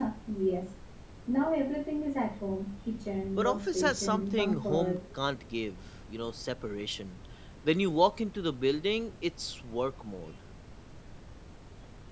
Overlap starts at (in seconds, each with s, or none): 3.4 s